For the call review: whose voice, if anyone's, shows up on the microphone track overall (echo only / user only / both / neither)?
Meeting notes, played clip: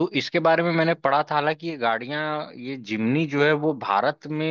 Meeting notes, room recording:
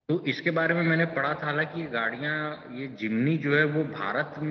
echo only